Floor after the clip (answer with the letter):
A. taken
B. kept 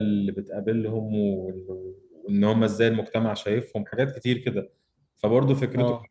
B